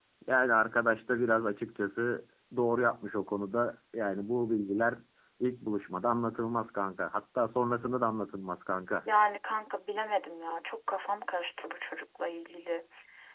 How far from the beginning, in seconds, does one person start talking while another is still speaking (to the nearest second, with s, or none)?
none